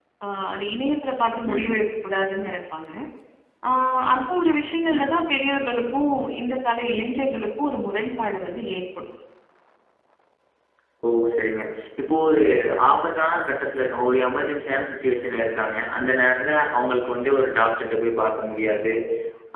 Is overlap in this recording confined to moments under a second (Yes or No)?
Yes